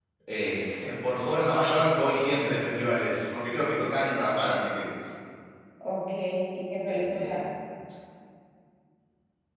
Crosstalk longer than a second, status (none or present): none